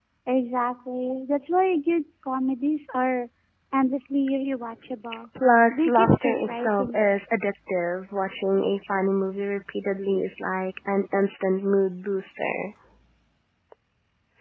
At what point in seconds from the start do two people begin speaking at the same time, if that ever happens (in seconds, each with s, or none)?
5.7 s